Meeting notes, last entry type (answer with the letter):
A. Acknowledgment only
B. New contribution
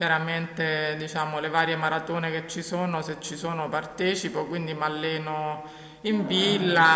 A